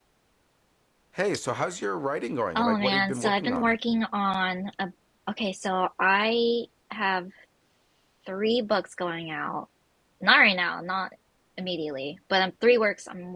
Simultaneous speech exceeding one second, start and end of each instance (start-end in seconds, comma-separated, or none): 2.6-3.8